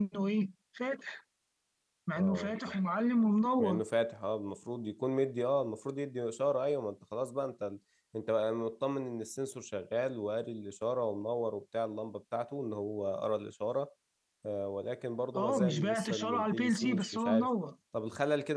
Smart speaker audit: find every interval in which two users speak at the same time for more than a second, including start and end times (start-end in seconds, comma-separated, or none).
15.3-17.5